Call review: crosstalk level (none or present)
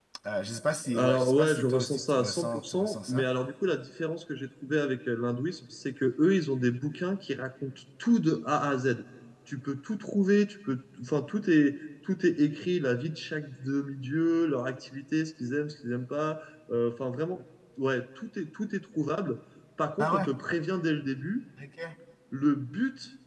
present